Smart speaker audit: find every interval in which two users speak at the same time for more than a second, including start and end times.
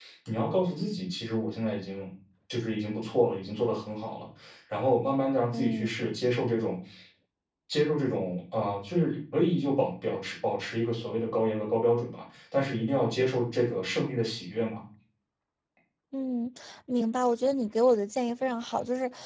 none

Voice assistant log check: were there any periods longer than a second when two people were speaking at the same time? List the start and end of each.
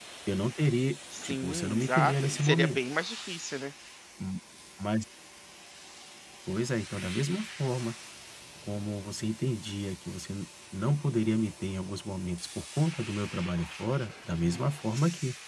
1.2-2.8

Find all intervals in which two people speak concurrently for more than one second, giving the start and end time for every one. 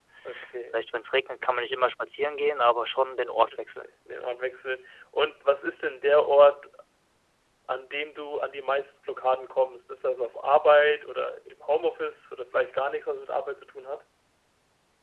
none

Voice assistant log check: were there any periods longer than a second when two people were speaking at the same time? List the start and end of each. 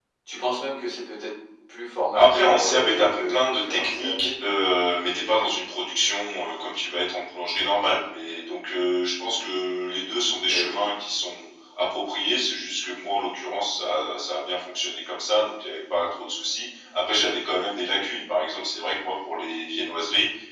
2.1-4.3

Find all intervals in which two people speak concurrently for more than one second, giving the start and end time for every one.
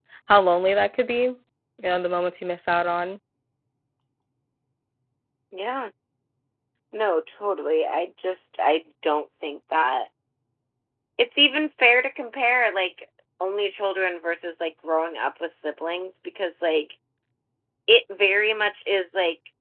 none

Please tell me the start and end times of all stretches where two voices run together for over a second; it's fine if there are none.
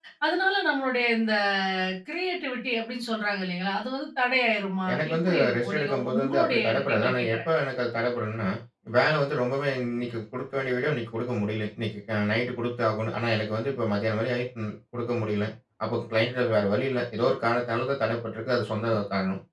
4.9-7.4

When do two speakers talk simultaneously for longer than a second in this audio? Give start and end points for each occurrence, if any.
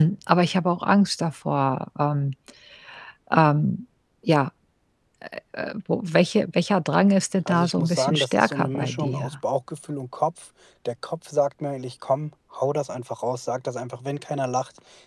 7.5-9.3

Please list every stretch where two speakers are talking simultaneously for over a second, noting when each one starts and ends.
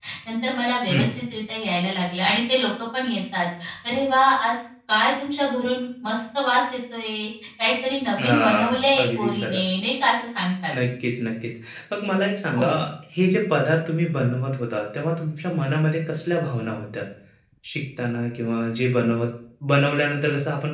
8.2-9.6

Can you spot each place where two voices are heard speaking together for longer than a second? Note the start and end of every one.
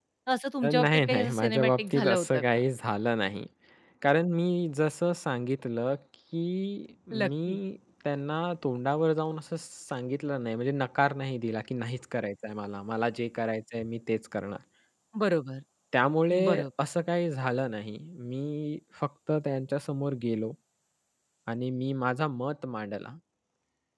0.6-2.4

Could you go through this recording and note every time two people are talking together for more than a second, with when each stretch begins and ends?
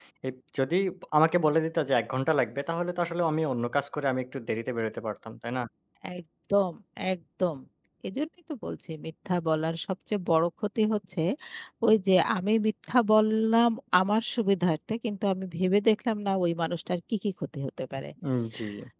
none

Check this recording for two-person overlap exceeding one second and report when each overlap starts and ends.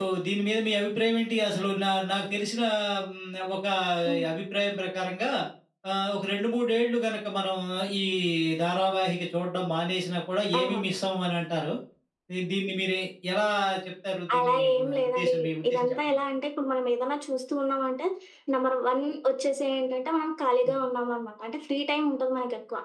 14.4-16.1

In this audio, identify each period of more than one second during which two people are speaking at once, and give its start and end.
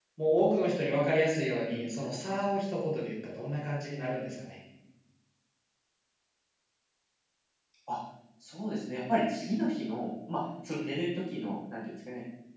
none

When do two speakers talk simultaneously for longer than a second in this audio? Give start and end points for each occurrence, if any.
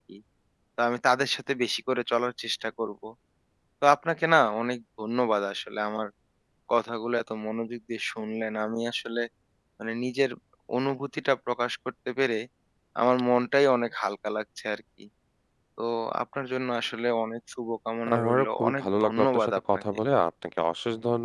18.2-19.8

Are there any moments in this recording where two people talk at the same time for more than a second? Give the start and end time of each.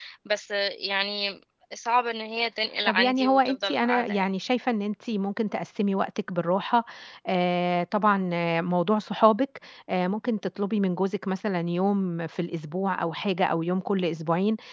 2.9-4.2

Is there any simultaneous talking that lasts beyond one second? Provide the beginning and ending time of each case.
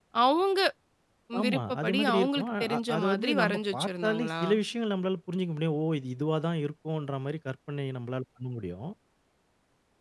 1.4-4.4

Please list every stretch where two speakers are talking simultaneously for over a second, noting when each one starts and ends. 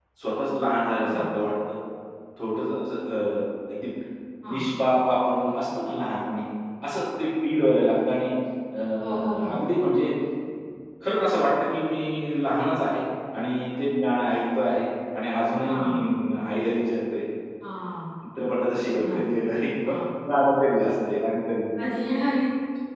none

